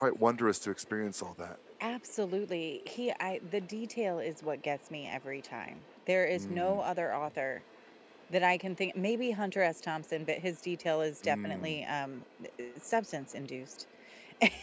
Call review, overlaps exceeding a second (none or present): none